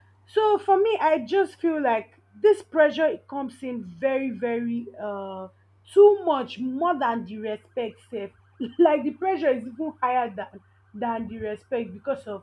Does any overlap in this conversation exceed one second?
No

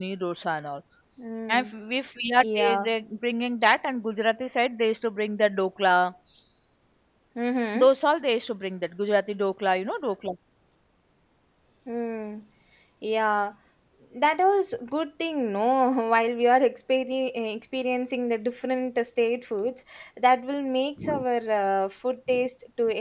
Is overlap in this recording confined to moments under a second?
Yes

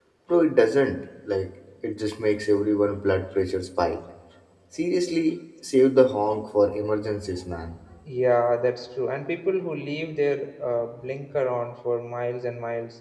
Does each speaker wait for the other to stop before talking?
Yes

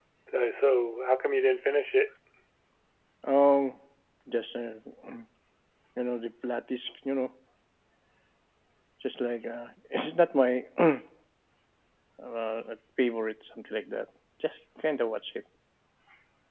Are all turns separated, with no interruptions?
Yes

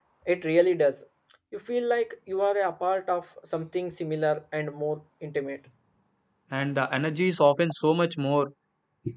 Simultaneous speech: No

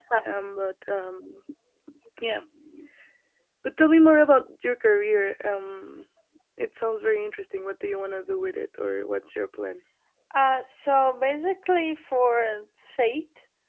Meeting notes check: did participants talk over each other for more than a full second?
No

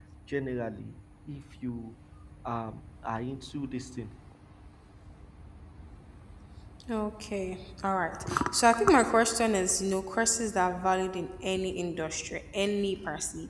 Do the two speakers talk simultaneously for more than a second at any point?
No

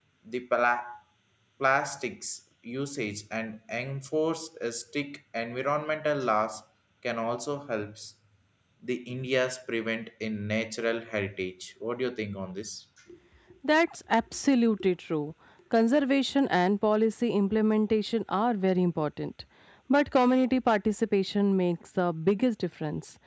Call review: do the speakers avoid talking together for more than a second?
Yes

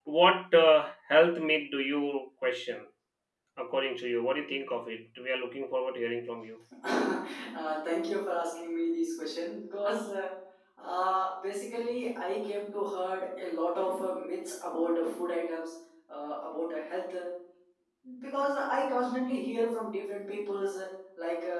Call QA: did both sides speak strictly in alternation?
Yes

